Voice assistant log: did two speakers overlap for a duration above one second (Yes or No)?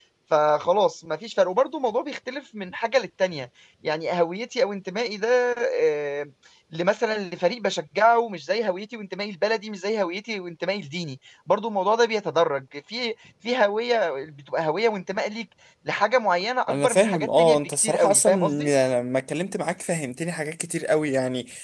Yes